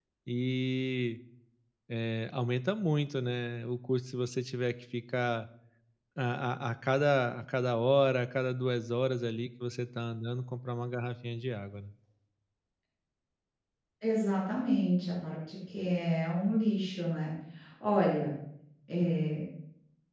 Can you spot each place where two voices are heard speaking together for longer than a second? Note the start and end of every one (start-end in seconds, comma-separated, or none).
none